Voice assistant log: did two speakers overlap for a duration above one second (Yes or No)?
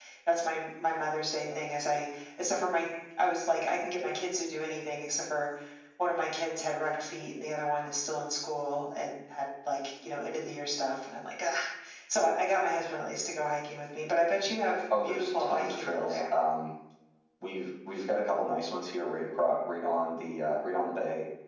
Yes